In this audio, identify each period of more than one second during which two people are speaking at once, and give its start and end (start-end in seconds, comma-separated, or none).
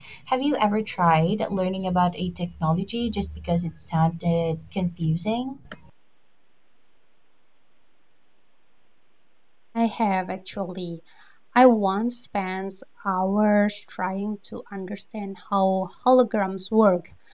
none